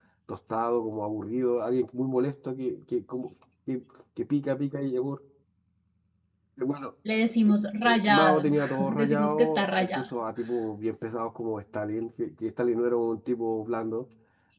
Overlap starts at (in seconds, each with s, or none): 7.8 s